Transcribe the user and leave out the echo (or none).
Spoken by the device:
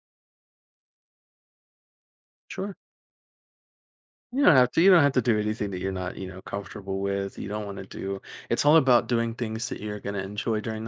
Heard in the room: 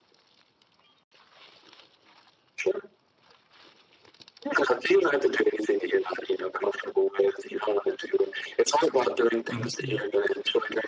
Mhm. Yeah.